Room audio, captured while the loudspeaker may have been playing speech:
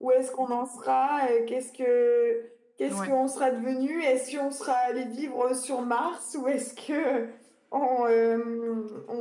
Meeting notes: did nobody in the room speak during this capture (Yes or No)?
No